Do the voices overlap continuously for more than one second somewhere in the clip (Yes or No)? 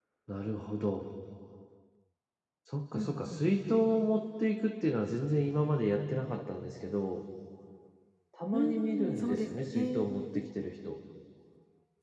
Yes